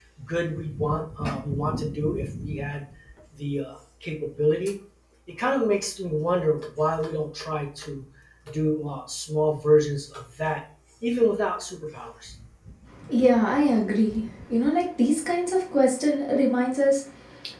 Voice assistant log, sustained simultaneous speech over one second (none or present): none